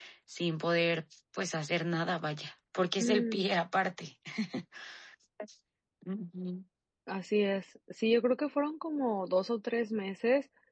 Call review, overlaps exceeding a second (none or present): none